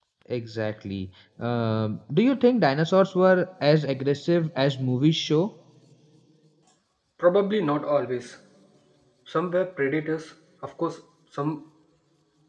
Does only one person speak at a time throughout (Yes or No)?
Yes